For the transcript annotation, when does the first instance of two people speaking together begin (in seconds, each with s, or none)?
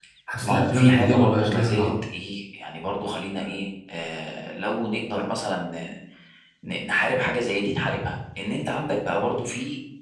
0.5 s